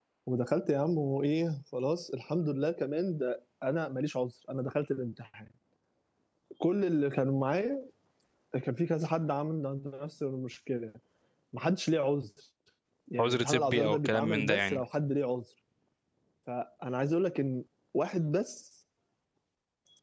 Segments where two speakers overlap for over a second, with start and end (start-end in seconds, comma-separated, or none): 13.2-14.8